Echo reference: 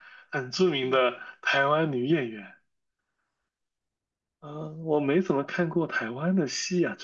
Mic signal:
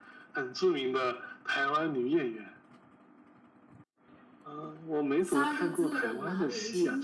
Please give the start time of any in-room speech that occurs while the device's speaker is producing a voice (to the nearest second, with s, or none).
5 s